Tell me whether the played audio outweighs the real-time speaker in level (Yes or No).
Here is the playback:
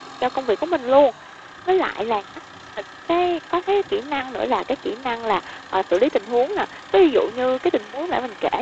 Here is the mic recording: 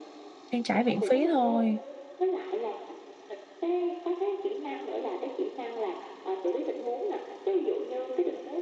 No